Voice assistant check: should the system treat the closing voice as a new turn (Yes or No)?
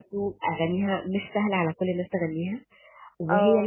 No